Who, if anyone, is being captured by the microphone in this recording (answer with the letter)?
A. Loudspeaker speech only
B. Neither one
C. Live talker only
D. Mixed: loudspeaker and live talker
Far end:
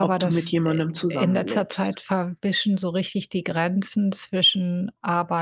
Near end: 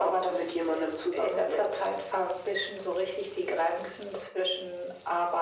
A